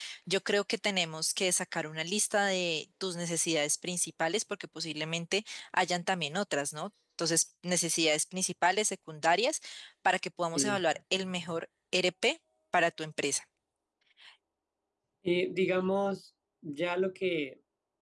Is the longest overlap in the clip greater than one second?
No

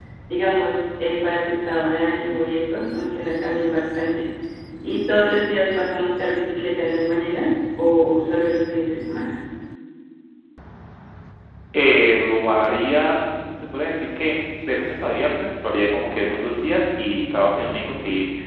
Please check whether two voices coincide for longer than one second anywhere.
No

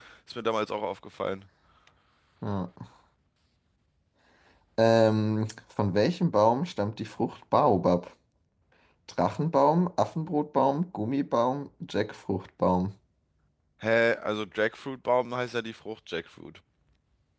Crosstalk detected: No

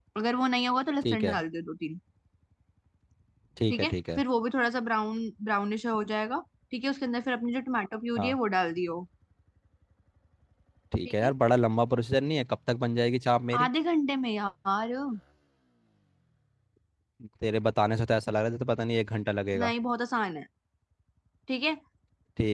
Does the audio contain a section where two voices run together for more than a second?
No

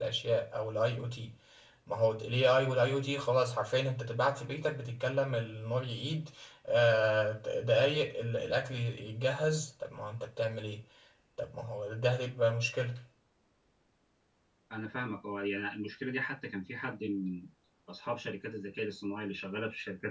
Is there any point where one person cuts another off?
No

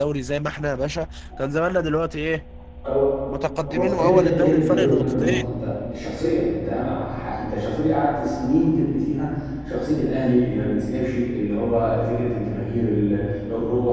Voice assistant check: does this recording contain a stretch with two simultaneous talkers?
Yes, from 3.7 s

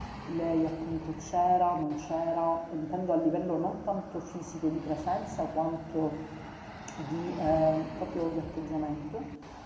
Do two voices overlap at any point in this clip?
No

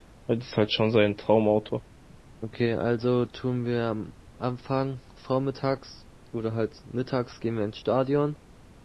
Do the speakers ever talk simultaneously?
No

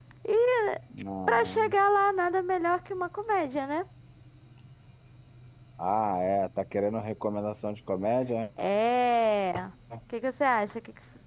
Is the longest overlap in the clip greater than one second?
No

